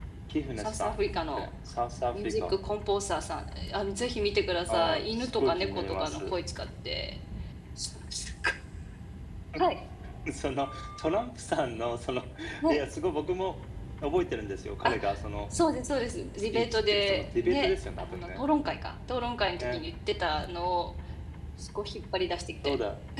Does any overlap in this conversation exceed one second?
Yes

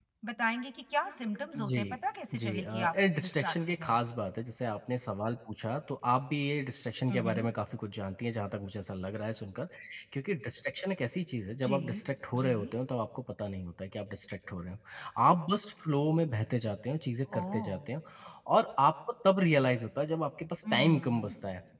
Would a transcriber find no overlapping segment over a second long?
No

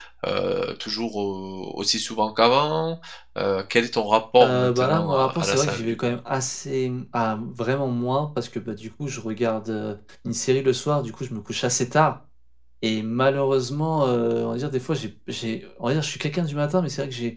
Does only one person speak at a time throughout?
No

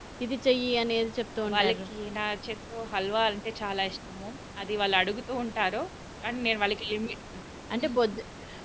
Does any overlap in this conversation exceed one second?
No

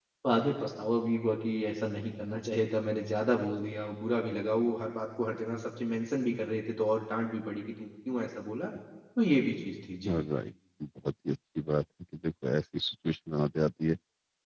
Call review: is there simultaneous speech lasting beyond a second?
No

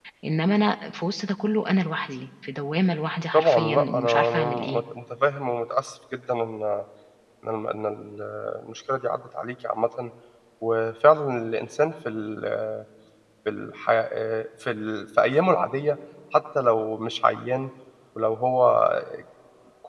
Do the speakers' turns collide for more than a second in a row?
Yes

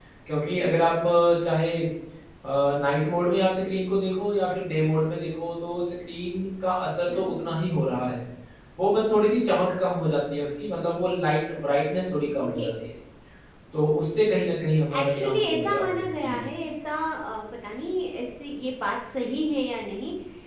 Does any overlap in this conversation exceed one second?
Yes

